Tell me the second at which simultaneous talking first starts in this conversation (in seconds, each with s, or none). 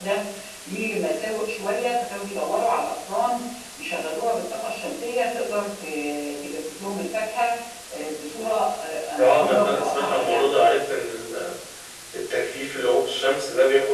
9.2 s